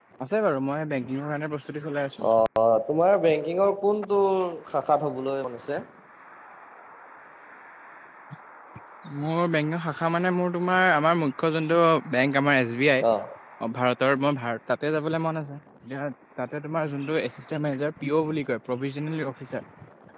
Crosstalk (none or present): none